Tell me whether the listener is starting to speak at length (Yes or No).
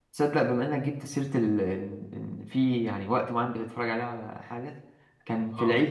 No